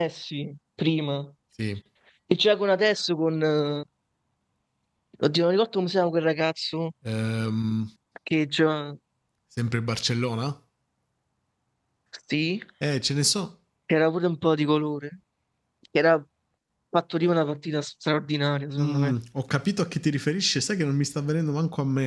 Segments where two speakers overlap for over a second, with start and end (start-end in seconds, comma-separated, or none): none